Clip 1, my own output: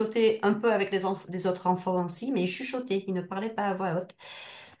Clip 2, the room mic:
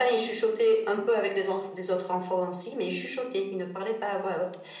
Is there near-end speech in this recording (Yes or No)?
No